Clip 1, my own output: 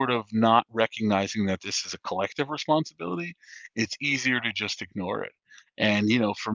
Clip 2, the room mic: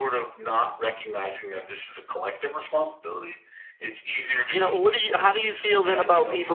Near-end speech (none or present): present